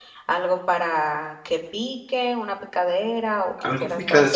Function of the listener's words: taking over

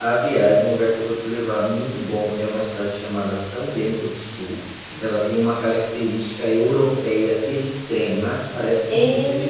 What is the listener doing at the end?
listening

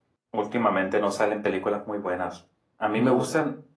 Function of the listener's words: listening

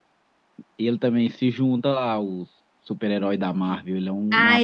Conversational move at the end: taking over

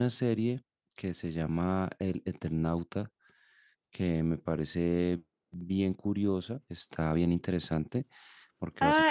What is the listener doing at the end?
taking over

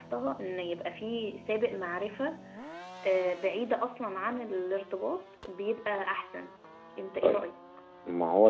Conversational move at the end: taking over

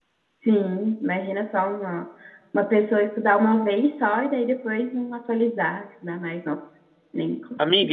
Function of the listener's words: taking over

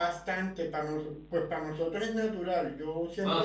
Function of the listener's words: taking over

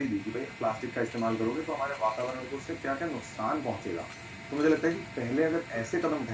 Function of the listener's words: listening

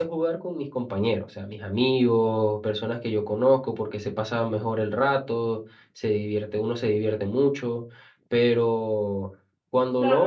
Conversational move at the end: taking over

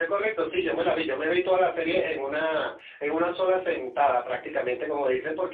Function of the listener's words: listening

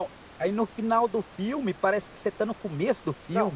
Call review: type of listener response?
taking over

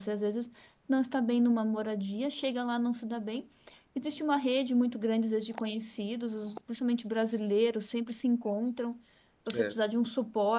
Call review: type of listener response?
listening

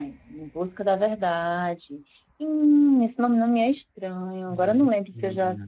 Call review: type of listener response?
listening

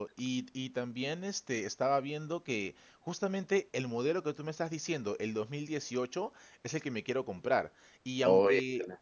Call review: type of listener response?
listening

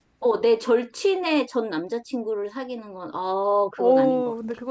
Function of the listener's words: taking over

